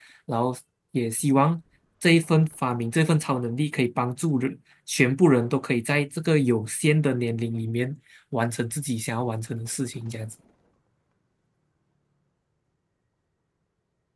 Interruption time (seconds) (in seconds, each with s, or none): none